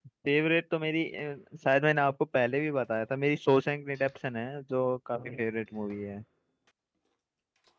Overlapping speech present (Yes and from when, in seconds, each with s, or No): No